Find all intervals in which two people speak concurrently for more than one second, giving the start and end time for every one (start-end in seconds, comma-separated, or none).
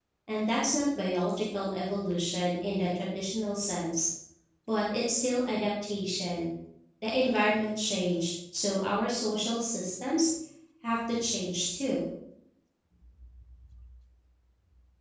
none